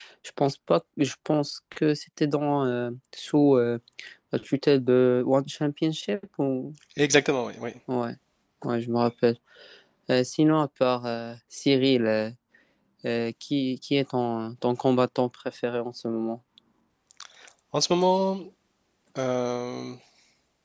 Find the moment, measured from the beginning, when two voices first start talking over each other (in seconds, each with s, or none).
none